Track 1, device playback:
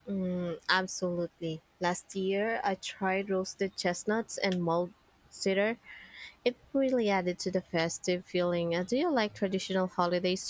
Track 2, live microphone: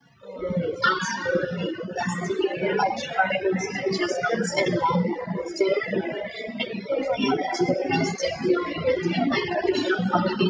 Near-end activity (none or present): none